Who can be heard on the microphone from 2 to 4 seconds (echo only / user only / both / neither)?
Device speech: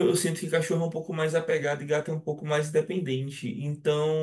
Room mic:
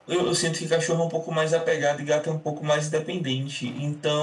echo only